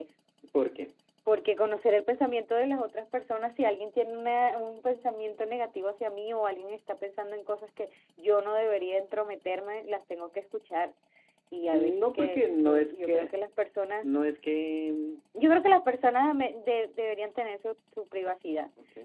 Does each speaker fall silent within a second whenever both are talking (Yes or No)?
No